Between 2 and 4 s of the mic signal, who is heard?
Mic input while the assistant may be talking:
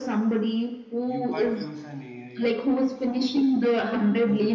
both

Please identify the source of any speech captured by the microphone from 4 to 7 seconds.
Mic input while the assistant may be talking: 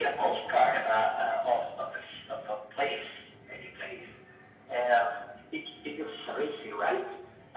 echo only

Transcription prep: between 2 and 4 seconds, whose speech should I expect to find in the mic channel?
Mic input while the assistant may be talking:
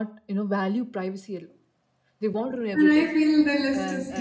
both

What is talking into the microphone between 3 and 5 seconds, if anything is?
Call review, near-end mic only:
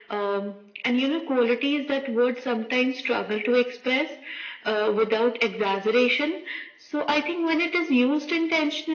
echo only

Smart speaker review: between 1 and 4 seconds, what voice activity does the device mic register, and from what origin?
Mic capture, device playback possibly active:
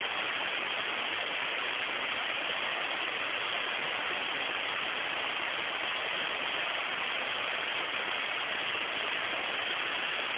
neither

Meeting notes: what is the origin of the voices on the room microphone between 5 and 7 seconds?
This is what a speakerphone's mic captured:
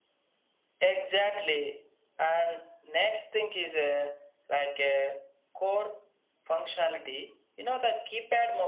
echo only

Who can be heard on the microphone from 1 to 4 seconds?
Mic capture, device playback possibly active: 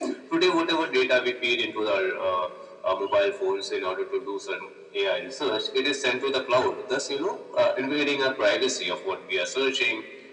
echo only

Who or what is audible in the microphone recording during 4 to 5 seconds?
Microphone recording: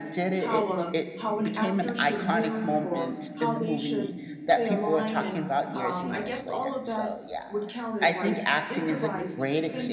both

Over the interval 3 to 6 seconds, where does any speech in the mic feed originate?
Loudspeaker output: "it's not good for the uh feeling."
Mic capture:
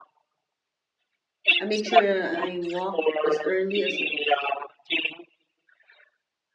both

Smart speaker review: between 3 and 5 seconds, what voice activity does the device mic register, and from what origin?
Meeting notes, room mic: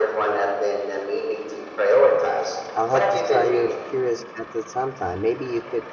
both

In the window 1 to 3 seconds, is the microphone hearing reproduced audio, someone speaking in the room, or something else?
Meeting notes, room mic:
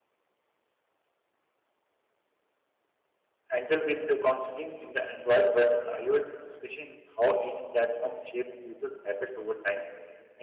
neither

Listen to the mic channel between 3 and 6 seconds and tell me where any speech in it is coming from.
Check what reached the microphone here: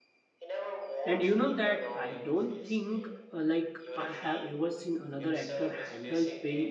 both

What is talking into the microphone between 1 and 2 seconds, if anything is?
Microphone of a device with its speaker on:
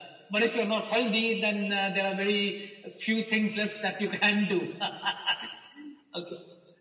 echo only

